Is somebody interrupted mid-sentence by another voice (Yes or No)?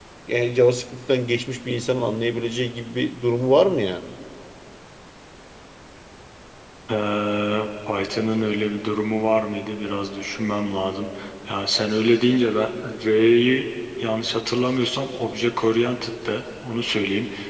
No